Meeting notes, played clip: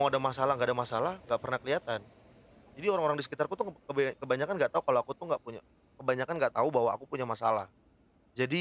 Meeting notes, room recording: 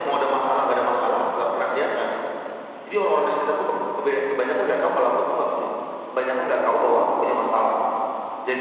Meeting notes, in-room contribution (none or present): none